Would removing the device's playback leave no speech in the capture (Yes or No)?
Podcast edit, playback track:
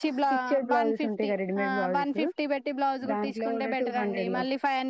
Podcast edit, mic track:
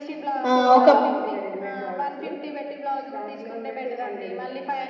No